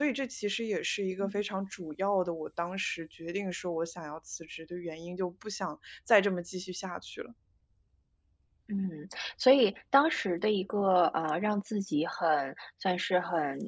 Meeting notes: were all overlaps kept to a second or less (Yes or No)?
Yes